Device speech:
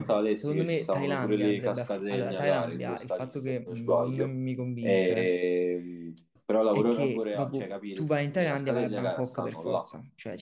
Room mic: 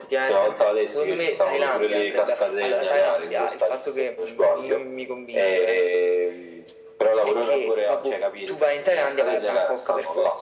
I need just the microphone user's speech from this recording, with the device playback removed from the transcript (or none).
none